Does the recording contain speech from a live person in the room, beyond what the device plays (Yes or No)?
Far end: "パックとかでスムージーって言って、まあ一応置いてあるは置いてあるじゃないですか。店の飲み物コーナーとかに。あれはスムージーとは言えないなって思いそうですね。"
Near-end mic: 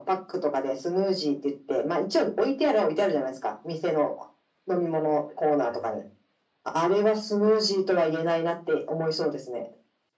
No